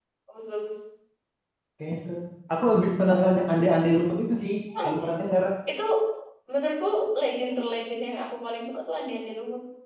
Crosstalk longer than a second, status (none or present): none